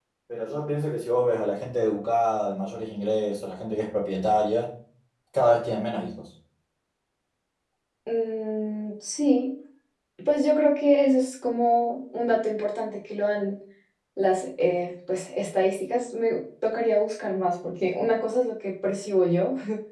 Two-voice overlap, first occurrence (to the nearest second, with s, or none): none